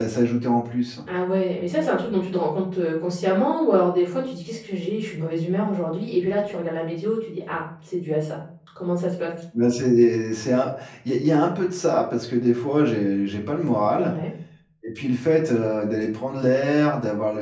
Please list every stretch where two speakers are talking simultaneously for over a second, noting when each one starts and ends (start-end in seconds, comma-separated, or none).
none